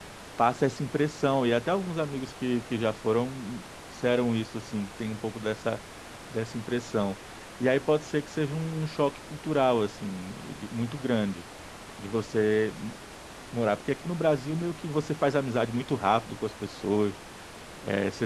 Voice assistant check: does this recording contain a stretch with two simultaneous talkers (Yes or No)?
No